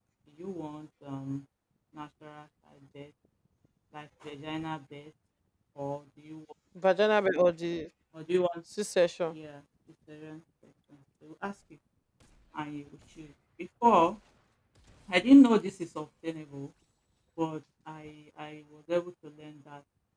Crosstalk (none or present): none